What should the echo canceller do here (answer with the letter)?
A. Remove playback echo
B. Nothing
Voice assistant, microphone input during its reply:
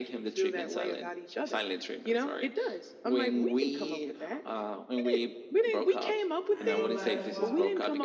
A